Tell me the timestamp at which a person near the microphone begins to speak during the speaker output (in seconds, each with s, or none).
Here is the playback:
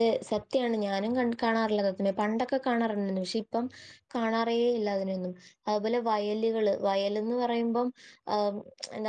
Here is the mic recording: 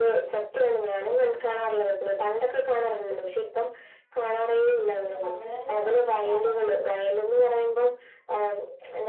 5.1 s